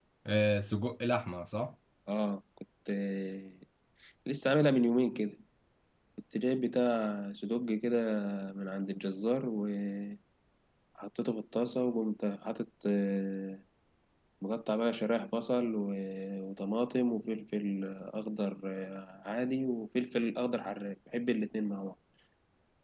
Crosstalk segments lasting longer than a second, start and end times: none

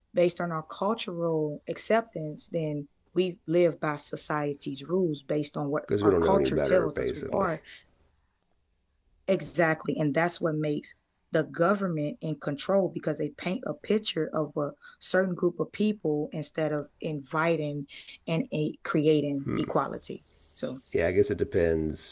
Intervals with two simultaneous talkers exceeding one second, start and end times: 6.0-7.5

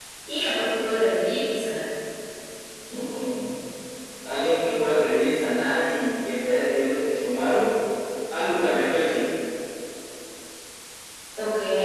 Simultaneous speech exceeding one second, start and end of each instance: none

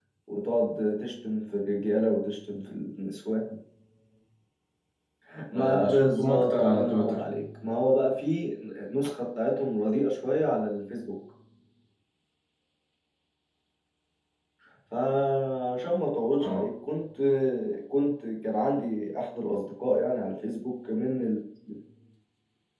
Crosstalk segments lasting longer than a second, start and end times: 5.5-7.2

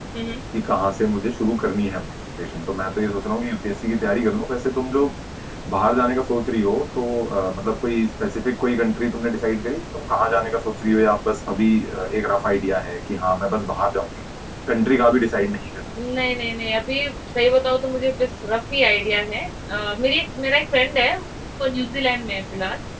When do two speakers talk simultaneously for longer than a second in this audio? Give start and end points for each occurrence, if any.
none

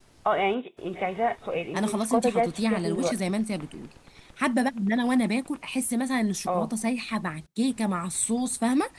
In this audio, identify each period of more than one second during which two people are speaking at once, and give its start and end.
1.7-3.3

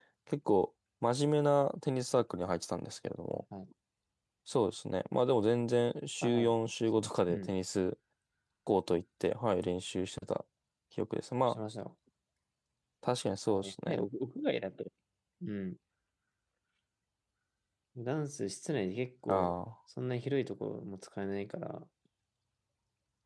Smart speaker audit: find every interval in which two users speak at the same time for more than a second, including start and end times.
none

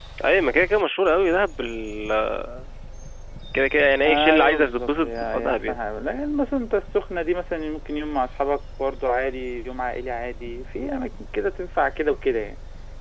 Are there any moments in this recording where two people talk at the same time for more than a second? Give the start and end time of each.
4.0-5.8

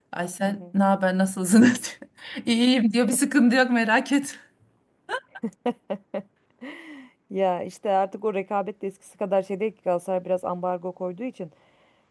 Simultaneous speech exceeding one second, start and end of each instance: none

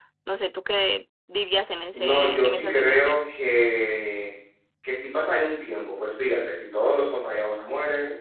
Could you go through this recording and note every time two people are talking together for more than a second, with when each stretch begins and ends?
1.9-3.2

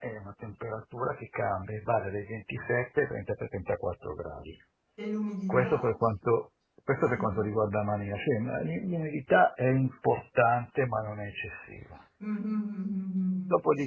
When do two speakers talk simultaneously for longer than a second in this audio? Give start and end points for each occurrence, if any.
none

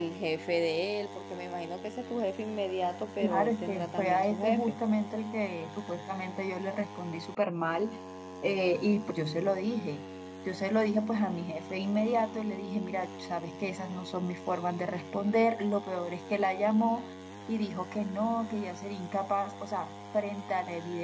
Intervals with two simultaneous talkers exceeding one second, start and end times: 3.2-4.8

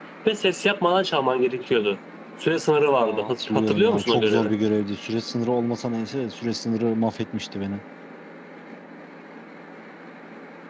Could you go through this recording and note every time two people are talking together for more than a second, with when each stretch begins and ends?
3.0-4.5

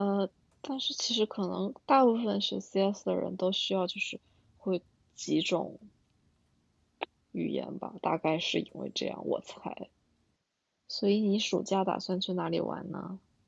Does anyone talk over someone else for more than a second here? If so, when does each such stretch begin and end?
none

